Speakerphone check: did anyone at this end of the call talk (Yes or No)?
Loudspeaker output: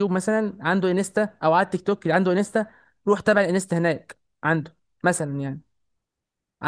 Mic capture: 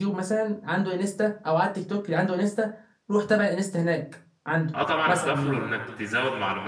Yes